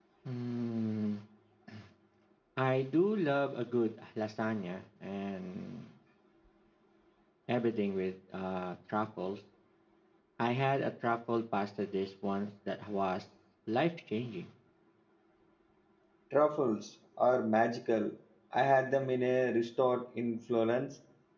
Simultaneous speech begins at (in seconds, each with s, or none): none